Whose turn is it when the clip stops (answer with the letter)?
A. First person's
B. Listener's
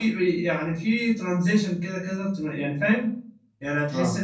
A